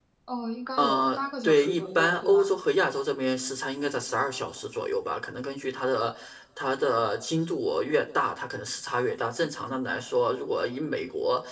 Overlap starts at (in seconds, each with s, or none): 0.8 s